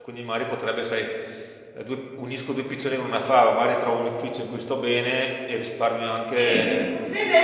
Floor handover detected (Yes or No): Yes